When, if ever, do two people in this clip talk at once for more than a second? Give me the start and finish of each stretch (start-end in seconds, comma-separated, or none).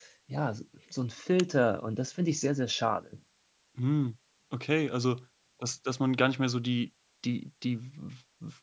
none